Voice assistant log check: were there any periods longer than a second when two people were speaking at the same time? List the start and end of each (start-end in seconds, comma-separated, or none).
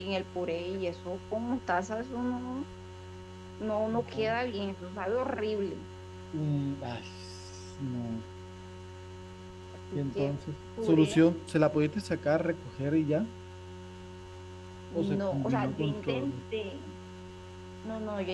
14.9-16.3